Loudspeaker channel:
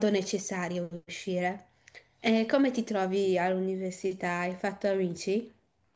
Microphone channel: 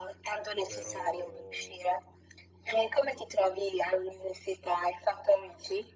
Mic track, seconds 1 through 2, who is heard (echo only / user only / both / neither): both